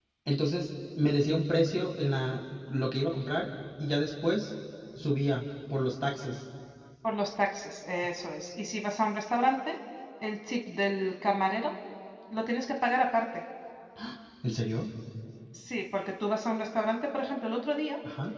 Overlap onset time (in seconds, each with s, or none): none